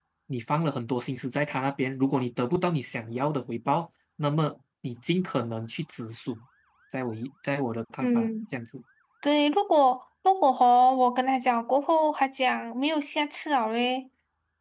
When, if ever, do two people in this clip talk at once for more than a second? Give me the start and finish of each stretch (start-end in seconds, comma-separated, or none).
none